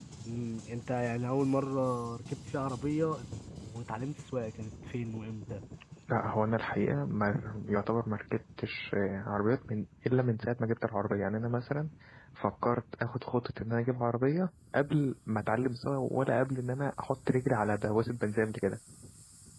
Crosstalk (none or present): none